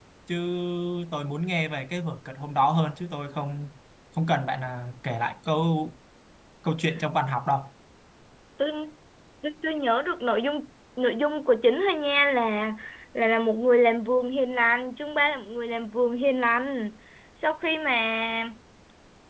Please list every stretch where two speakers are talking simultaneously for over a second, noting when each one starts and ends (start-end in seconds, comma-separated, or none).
none